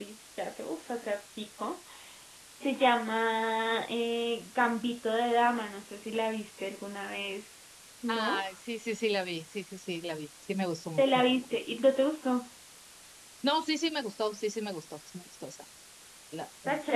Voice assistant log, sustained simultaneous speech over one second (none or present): none